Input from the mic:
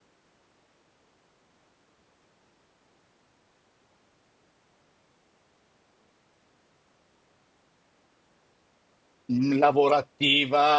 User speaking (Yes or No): Yes